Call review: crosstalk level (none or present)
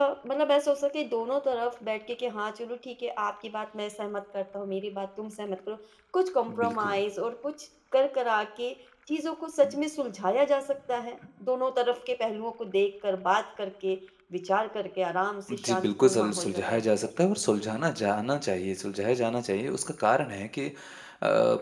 present